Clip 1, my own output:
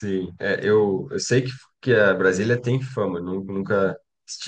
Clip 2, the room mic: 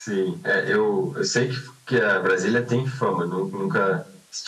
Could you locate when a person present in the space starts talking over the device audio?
none

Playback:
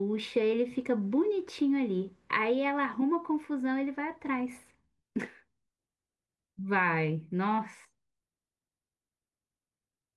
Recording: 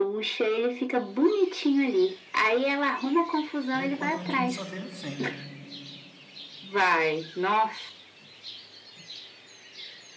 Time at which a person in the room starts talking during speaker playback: 3.7 s

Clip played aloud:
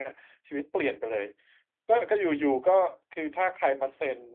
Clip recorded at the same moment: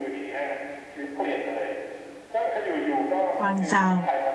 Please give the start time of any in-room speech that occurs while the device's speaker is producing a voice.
3.4 s

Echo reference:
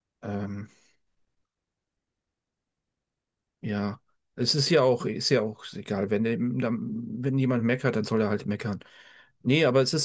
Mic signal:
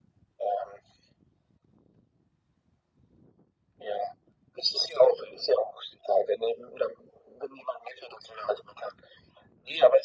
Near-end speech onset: none

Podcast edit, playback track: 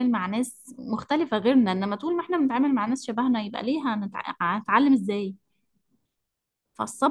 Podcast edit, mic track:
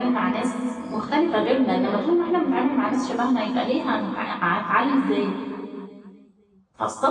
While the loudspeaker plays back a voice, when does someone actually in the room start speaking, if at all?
none

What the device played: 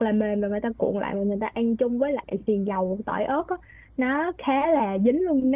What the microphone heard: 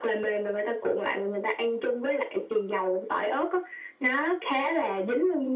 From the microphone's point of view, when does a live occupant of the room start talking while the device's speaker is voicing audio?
none

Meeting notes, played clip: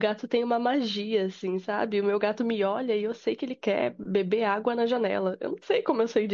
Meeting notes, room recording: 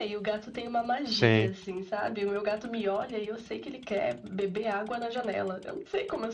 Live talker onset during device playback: 1.0 s

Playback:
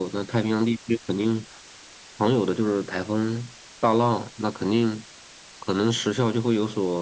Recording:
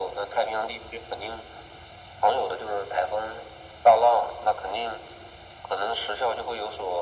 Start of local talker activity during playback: none

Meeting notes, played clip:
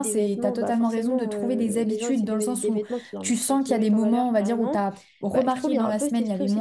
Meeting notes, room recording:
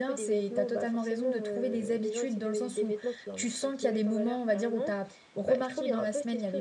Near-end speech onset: none

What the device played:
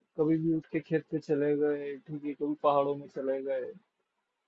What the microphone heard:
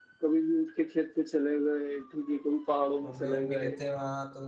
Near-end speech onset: 3.0 s

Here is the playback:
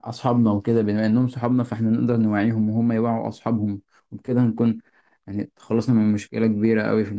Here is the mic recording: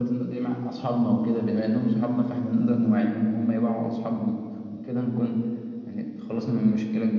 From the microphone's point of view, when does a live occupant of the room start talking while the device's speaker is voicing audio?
none

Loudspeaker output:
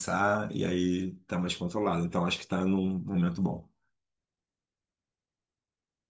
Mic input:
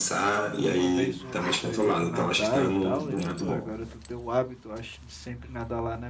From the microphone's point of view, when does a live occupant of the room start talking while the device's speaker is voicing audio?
0.6 s

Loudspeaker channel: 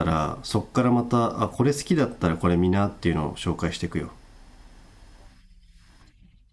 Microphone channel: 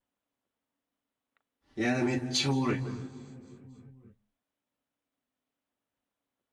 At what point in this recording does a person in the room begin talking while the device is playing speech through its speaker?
1.8 s

